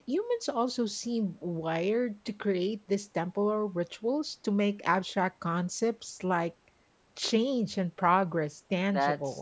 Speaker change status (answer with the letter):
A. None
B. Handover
B